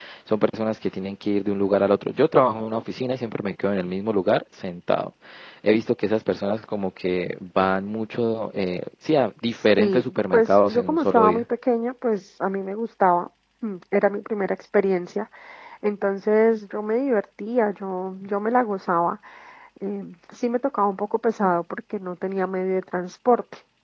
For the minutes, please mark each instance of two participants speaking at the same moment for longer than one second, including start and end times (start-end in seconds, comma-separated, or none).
9.5-11.4